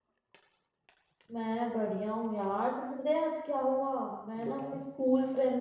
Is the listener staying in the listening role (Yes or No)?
Yes